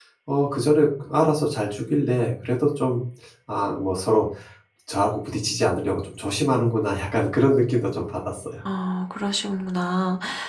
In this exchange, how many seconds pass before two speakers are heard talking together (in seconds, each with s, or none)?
none